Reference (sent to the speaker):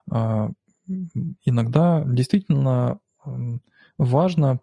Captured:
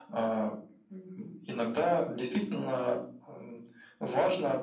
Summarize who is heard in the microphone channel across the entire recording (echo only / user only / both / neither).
echo only